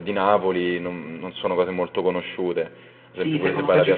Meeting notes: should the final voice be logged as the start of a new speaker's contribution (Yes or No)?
Yes